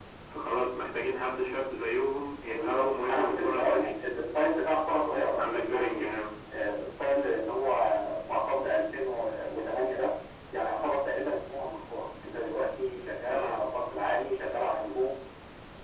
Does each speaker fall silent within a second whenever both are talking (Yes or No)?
No